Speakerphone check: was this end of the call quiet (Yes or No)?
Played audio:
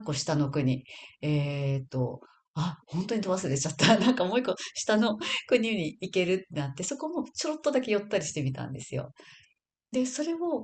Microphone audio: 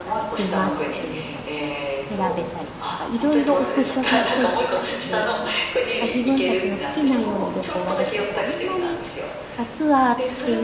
No